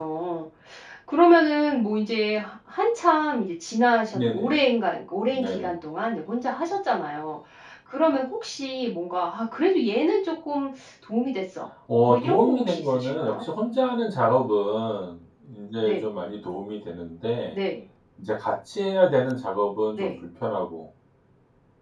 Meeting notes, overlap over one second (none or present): present